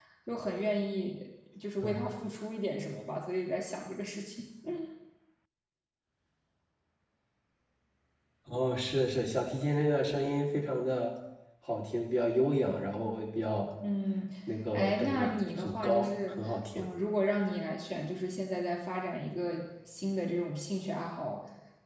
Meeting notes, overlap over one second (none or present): present